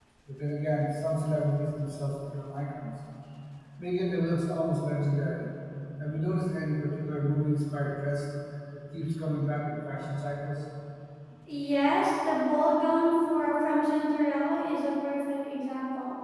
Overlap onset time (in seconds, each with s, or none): none